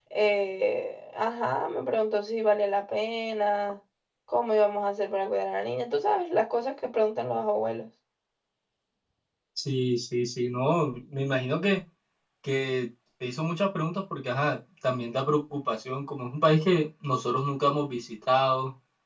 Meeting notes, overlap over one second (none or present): none